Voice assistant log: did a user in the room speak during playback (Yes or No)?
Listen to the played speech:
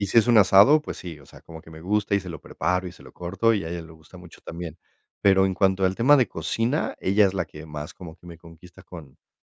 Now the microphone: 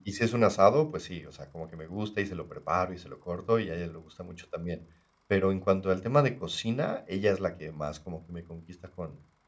No